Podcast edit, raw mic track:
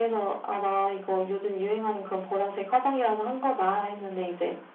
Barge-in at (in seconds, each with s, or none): none